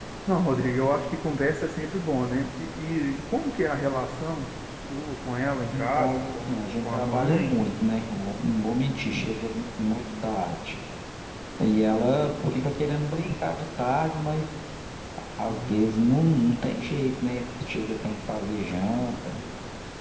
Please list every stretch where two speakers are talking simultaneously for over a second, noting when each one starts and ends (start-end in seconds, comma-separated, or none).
5.7-7.5